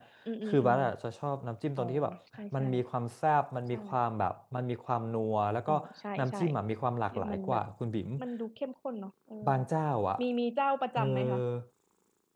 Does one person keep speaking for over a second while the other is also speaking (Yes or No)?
No